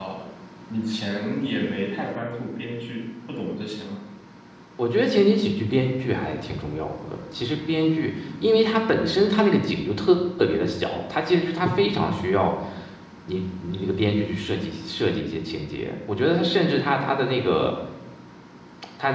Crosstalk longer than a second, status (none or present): none